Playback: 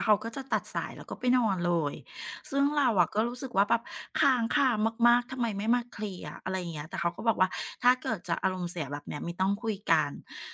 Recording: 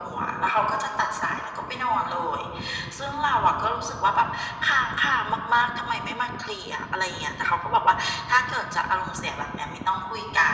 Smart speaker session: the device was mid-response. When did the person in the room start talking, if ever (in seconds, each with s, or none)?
none